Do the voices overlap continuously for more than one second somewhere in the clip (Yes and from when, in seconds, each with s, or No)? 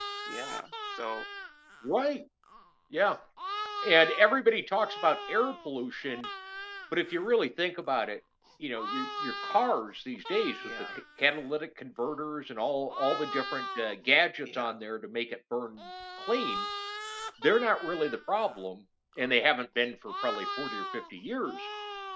No